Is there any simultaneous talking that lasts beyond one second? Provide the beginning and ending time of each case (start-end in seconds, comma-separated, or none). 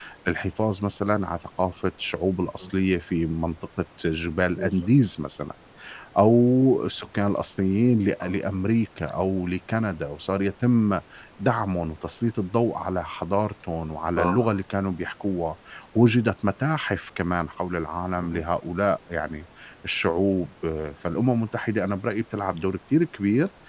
none